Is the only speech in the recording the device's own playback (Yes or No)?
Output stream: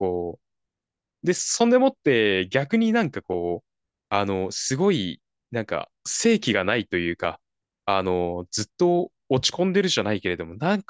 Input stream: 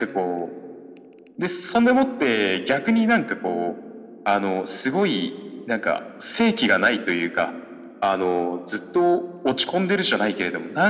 Yes